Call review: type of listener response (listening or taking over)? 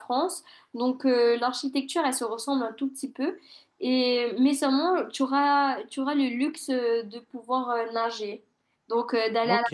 taking over